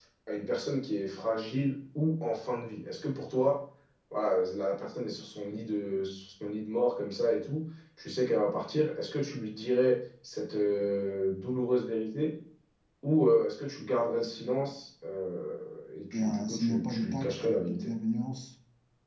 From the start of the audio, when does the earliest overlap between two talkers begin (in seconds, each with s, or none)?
16.1 s